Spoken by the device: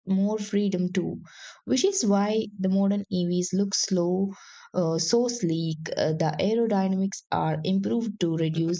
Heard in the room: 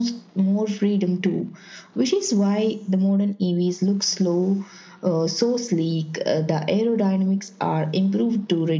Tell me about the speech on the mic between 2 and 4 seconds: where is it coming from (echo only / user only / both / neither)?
echo only